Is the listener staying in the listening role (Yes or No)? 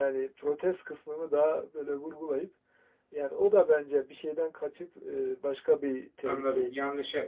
No